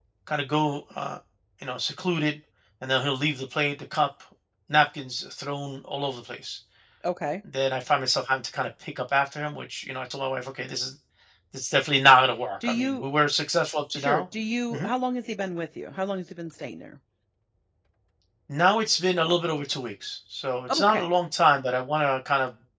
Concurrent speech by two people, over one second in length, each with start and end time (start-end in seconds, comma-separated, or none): none